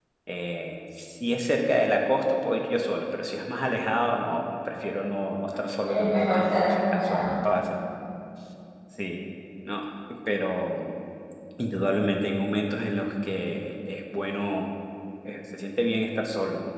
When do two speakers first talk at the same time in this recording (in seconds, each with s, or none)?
5.9 s